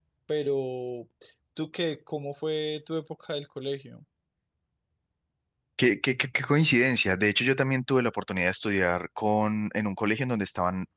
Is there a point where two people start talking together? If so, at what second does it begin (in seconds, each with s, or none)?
none